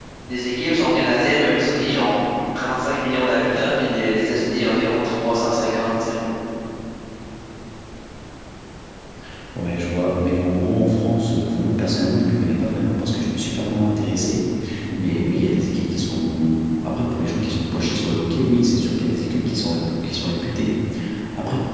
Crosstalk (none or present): none